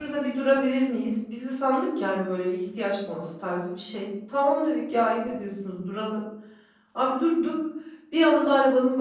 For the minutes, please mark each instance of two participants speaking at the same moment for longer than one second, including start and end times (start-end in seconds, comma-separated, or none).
none